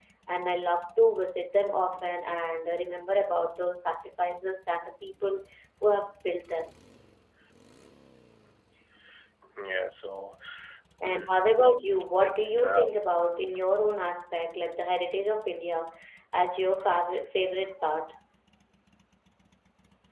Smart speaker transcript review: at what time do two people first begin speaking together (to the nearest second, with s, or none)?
11 s